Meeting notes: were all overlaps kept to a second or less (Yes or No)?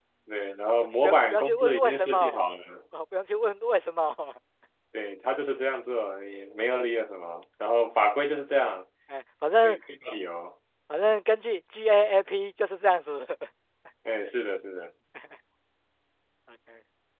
No